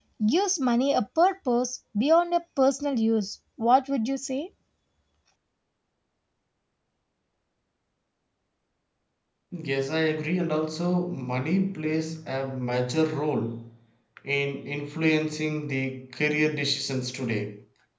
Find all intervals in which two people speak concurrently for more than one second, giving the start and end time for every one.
none

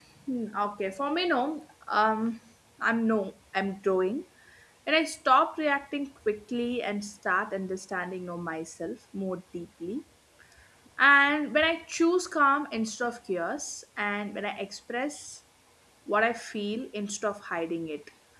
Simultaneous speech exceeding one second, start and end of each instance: none

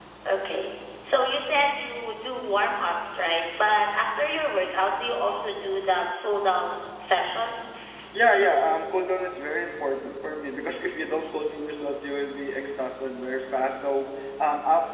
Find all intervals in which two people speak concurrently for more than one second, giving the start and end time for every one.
none

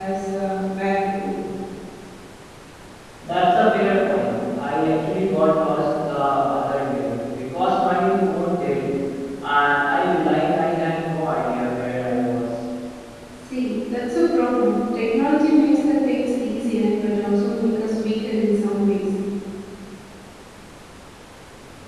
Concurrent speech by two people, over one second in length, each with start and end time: none

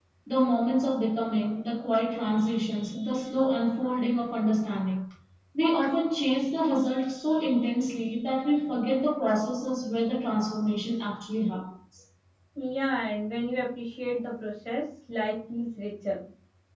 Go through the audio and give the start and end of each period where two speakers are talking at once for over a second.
none

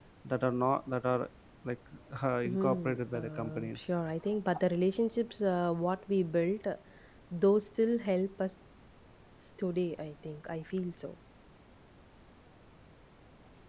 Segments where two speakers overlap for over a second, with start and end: 2.4-3.9

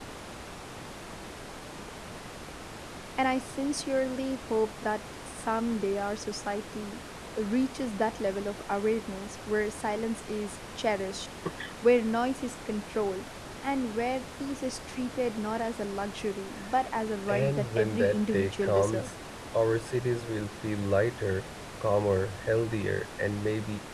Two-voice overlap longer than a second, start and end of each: 17.3-19.1

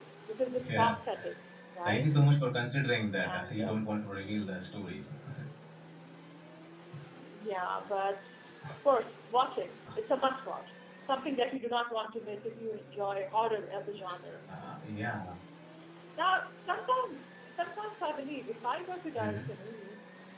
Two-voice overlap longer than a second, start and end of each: none

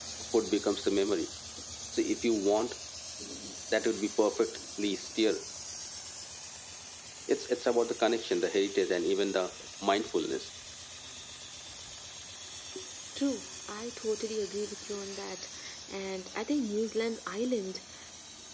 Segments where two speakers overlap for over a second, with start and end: none

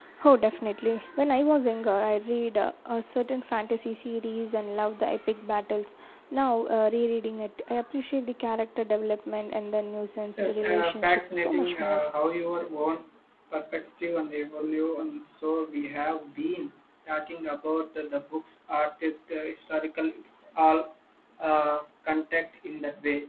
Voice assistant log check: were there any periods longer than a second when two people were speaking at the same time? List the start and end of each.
10.3-12.0

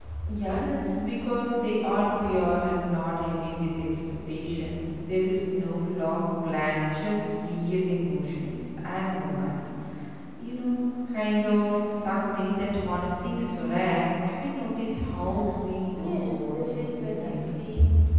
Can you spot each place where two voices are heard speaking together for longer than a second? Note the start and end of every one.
15.9-17.4

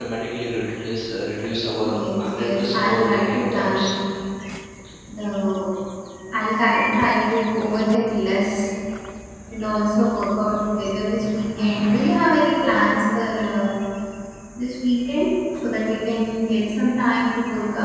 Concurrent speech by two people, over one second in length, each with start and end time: 1.8-3.9

